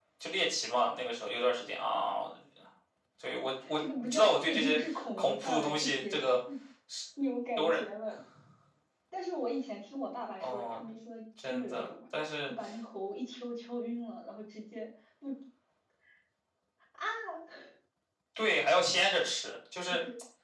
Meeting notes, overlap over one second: present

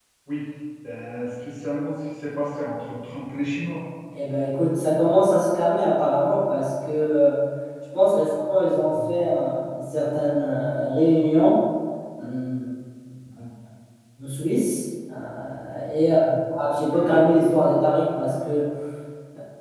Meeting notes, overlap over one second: none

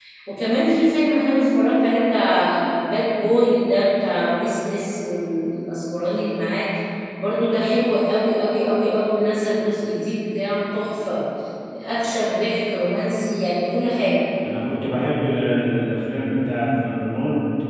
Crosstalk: none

